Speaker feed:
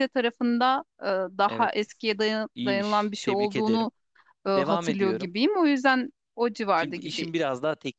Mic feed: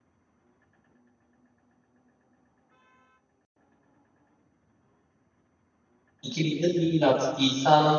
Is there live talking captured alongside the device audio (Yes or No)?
Yes